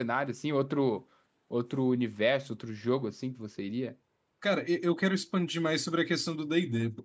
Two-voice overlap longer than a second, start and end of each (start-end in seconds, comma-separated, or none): none